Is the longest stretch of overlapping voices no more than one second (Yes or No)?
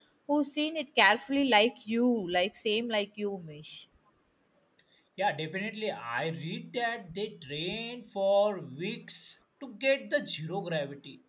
Yes